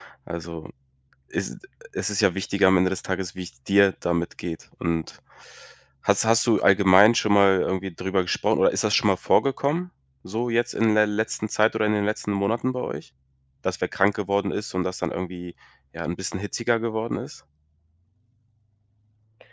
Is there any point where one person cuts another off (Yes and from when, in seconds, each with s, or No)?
No